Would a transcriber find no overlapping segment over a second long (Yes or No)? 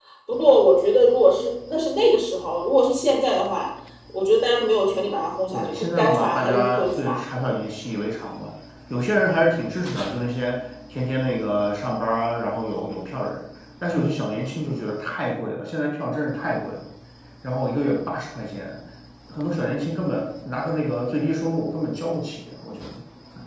No